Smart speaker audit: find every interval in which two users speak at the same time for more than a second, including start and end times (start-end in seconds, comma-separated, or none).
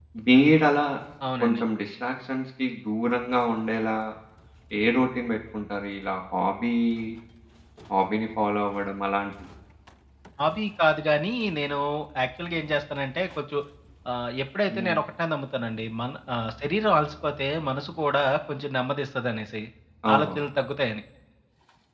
none